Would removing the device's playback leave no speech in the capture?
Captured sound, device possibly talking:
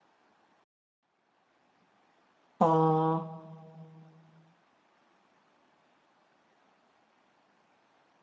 No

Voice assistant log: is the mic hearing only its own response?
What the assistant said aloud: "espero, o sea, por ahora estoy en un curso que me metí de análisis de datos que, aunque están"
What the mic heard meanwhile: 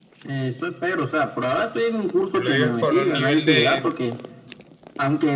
No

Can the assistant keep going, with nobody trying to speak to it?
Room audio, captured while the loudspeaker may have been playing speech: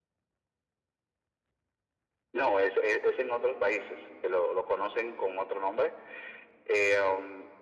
Yes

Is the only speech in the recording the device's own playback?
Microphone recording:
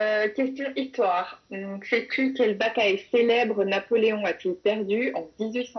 Yes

